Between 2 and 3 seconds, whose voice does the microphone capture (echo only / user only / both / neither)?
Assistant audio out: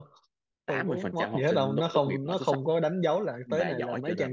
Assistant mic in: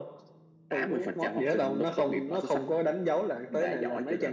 echo only